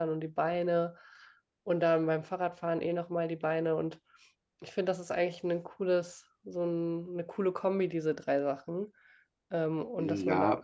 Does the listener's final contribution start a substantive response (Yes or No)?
Yes